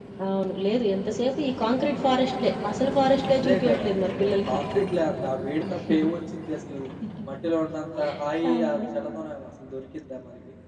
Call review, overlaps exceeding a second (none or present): present